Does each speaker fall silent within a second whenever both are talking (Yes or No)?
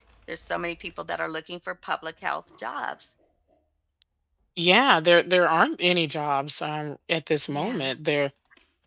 Yes